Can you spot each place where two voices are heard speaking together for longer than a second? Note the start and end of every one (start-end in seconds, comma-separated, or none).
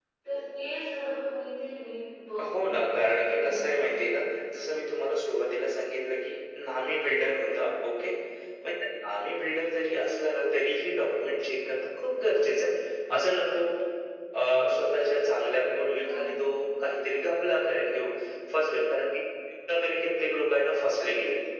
2.5-4.2